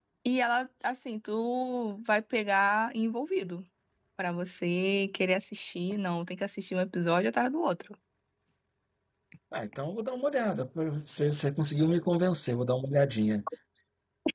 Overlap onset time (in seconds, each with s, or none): none